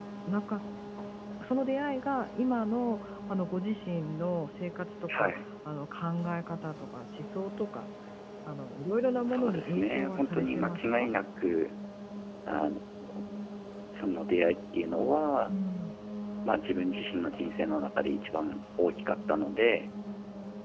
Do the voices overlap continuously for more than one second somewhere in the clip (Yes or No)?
Yes